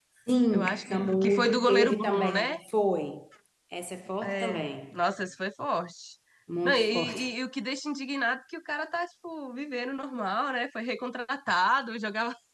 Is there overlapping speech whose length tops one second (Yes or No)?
Yes